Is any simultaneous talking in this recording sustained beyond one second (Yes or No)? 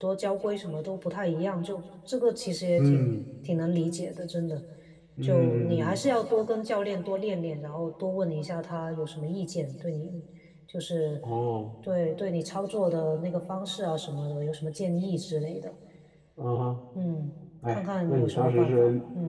Yes